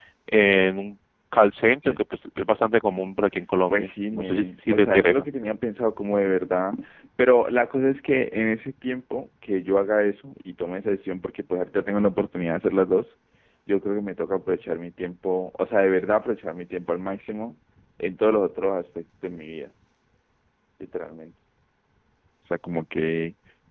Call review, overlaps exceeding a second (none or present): present